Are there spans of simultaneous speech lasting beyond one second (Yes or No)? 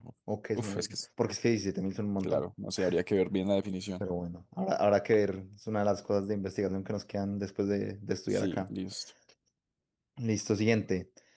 No